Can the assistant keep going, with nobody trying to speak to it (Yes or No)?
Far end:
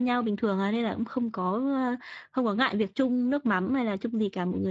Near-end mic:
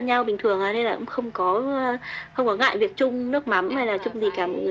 No